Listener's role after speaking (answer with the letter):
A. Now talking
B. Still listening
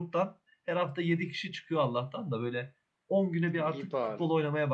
B